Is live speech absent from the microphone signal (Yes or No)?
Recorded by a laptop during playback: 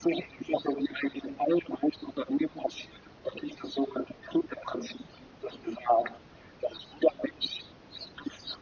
Yes